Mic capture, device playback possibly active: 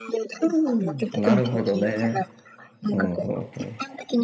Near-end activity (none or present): present